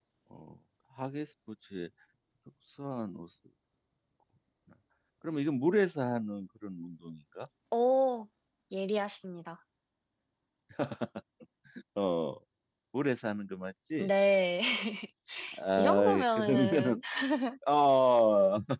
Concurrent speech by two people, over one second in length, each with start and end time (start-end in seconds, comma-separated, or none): 15.8-17.0